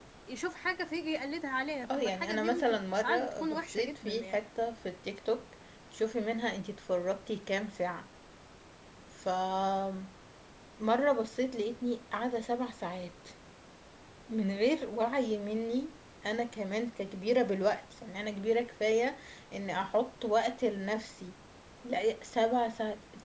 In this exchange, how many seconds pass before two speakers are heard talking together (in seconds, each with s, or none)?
1.8 s